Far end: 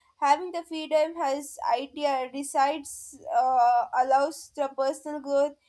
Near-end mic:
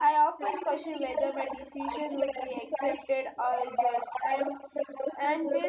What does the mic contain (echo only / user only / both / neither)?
both